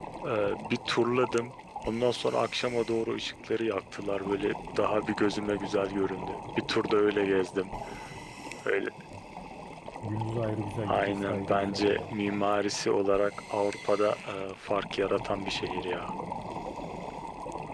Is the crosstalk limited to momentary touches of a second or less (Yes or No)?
No